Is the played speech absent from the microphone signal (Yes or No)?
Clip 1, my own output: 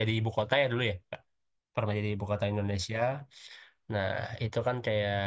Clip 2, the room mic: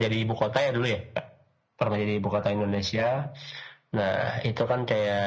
No